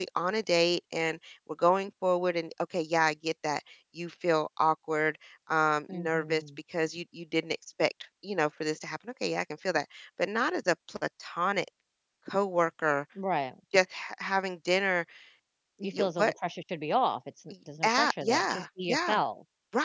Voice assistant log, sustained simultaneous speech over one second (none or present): present